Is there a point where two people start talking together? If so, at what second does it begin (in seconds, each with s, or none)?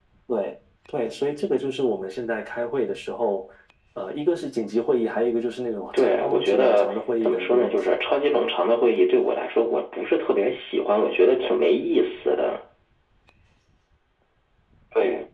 5.9 s